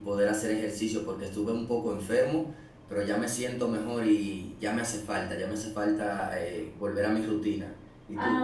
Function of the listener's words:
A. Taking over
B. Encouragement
A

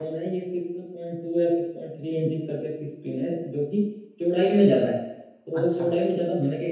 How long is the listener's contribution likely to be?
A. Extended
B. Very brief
B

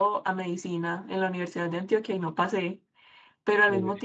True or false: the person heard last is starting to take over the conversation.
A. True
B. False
B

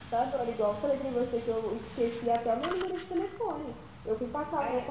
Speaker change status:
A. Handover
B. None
B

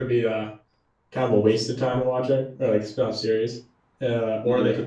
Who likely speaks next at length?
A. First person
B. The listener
A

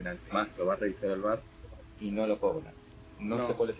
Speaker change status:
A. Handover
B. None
B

